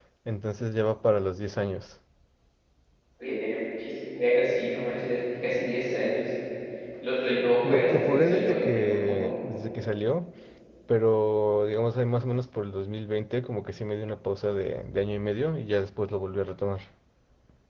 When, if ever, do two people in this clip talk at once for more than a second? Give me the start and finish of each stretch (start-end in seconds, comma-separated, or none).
7.7-9.3